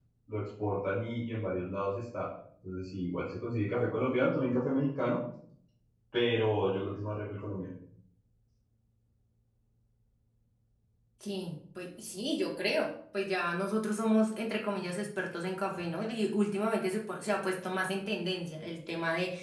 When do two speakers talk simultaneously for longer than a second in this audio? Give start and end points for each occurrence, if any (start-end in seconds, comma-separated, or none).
none